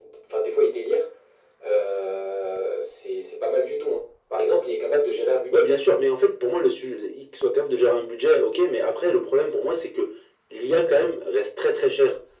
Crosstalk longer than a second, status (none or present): none